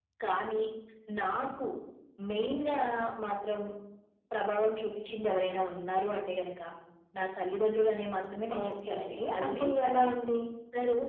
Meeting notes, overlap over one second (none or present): present